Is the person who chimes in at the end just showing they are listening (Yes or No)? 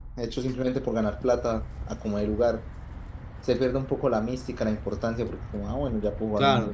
No